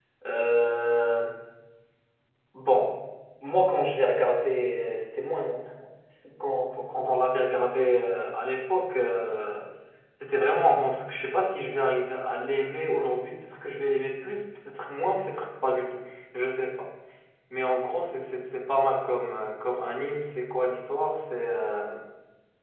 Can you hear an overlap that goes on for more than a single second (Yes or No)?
No